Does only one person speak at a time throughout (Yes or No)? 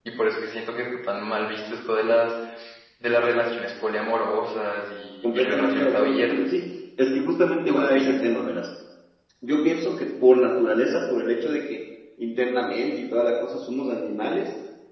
No